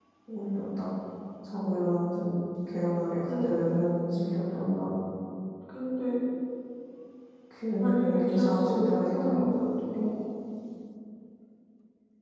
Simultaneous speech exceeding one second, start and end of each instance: 7.8-9.5

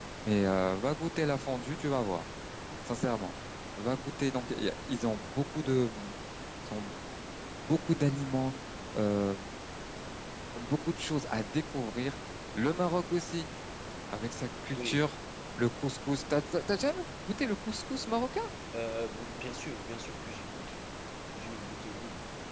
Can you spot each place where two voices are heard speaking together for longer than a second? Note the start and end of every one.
none

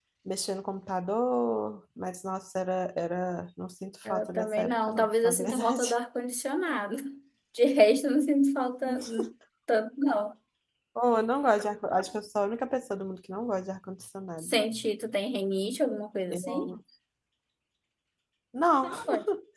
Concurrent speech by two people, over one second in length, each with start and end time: 4.1-5.9

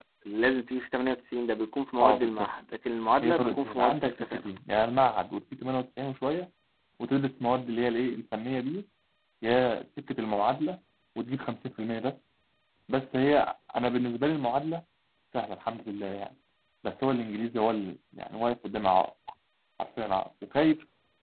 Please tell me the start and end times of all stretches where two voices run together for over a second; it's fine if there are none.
3.2-4.5

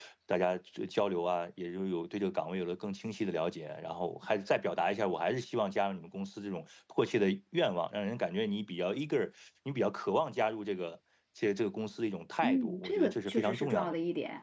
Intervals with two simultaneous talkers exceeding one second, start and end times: 12.4-13.9

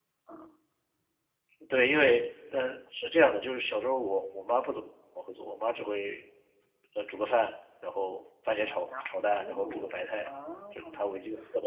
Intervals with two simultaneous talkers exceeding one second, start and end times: 8.5-10.3

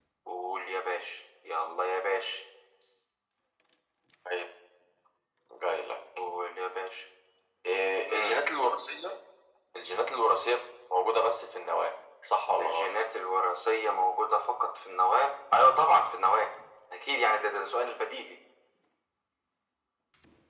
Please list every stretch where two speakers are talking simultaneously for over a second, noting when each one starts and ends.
none

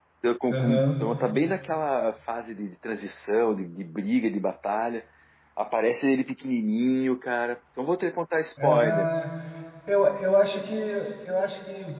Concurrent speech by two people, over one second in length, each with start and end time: none

